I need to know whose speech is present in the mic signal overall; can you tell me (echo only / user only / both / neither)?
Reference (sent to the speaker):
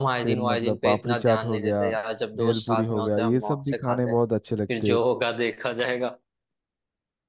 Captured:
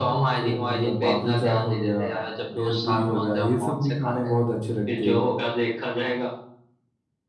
echo only